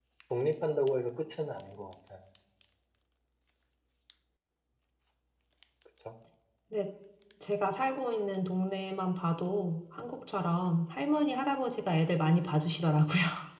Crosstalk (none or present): none